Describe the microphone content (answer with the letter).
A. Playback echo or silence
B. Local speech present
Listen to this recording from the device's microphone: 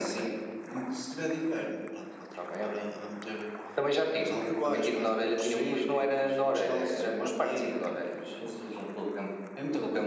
A